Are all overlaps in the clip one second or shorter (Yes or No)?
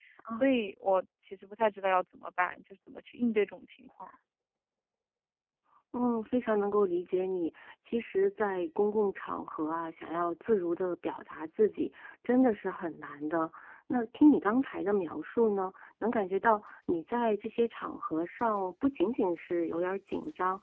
Yes